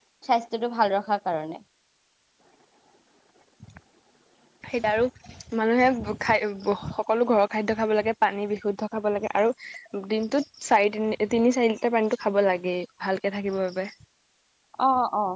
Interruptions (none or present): none